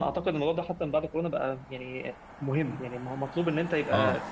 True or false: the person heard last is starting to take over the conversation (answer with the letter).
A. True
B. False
B